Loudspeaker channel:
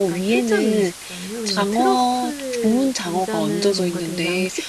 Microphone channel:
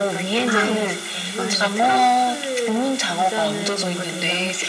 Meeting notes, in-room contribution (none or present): present